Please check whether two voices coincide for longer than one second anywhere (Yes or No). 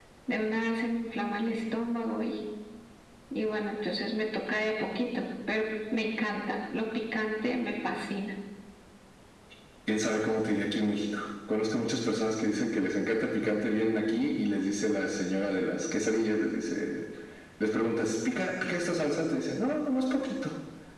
No